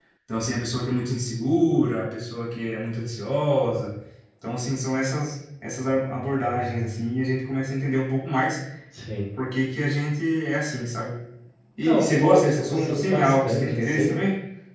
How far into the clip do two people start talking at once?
11.8 s

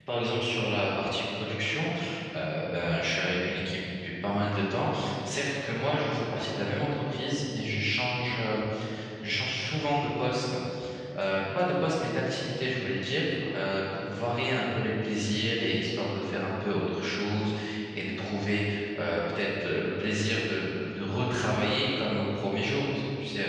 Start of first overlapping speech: none

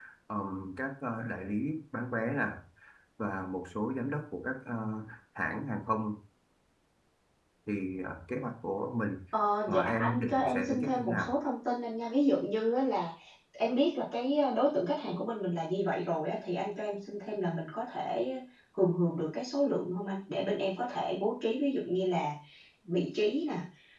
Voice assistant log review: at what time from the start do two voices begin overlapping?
9.7 s

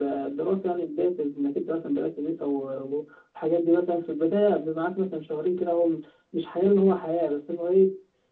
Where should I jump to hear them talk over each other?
none

